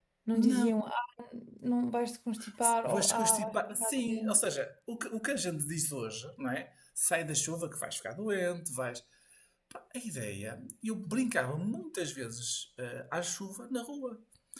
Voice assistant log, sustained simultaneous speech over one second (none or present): present